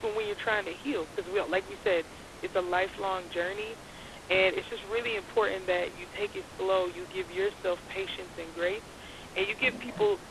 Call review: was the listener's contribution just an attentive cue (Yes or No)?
Yes